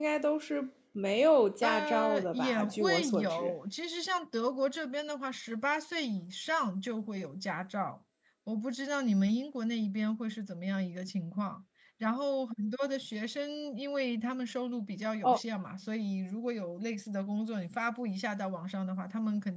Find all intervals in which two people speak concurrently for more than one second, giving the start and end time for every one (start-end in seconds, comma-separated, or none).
1.6-3.5